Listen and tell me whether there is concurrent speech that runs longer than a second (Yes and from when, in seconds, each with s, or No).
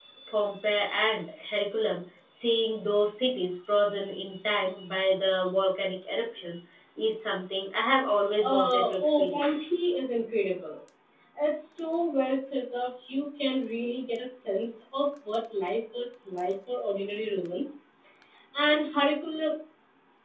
Yes, from 8.4 s